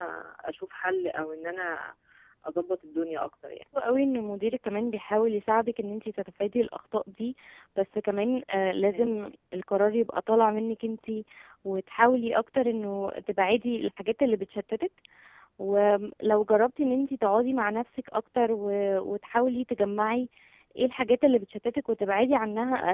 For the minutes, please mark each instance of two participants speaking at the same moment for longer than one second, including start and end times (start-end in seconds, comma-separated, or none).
none